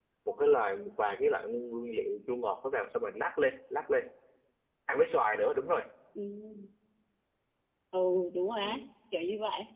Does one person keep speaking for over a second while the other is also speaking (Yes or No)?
No